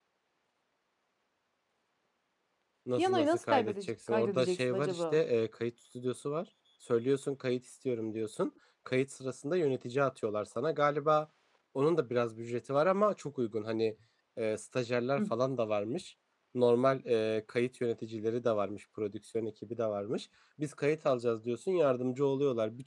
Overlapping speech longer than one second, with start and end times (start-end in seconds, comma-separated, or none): 3.0-5.2